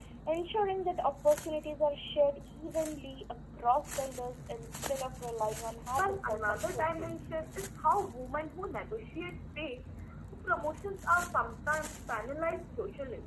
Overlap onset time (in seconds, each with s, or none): 6.0 s